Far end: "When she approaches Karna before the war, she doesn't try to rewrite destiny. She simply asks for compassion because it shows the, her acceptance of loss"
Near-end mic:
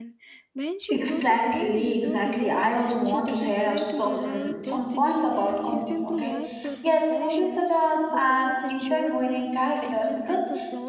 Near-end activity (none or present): present